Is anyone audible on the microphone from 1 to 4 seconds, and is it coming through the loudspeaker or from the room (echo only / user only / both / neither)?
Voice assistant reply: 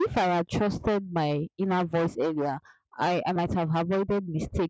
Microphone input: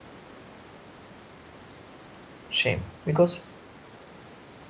user only